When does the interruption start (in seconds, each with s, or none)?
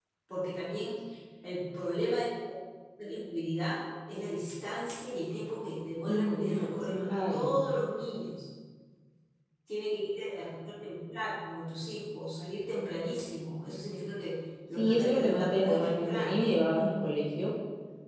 6.1 s